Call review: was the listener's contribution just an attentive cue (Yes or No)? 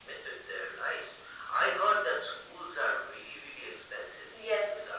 No